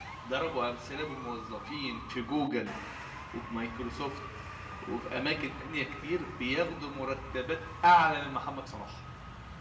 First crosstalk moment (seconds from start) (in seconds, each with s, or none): none